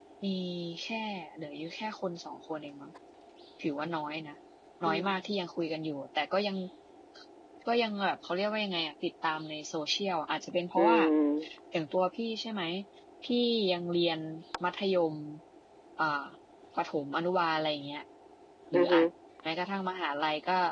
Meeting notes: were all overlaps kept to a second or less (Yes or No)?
Yes